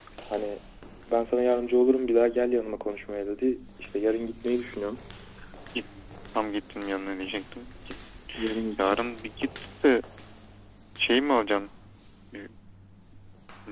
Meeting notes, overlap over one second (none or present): none